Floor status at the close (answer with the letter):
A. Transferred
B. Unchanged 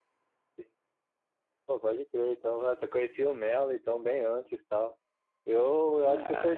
B